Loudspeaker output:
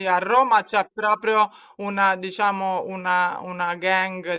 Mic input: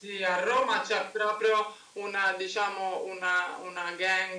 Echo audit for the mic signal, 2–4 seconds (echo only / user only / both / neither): echo only